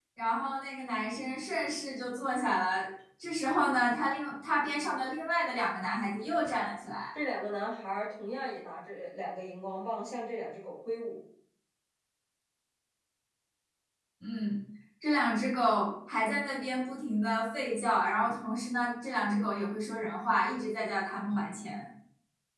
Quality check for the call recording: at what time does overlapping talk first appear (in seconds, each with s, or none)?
none